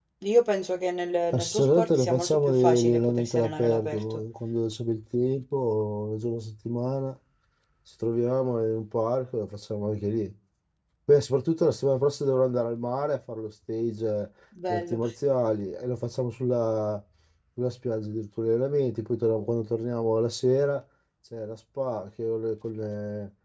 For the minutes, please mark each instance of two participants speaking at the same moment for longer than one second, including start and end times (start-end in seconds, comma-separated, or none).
1.3-4.2